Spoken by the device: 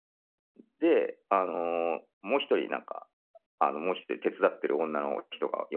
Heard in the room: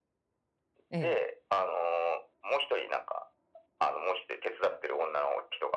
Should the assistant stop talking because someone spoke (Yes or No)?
Yes